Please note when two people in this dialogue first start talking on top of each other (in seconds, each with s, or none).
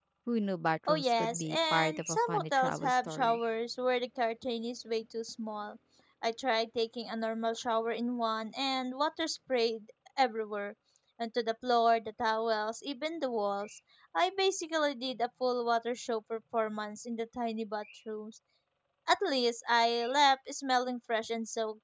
0.9 s